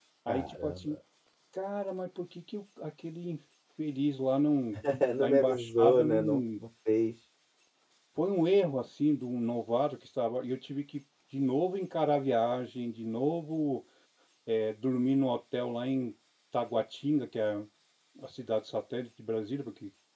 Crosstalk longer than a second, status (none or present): present